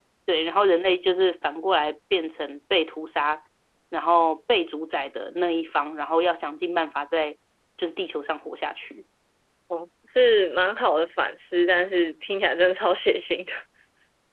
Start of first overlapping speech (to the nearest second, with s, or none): none